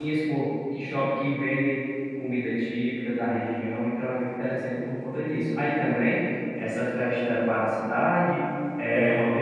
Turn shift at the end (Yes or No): No